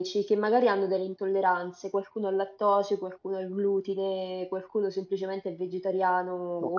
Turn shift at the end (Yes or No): No